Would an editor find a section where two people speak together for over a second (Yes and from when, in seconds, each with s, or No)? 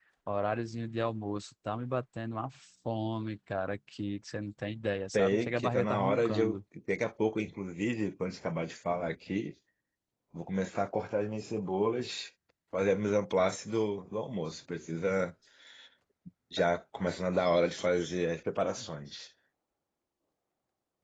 Yes, from 5.1 s